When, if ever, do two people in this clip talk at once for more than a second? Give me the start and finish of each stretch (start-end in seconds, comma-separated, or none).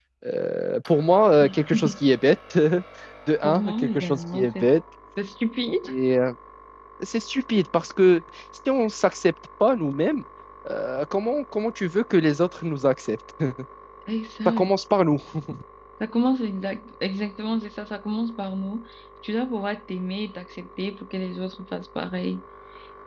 3.4-4.7